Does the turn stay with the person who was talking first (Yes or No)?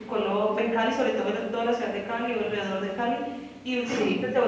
Yes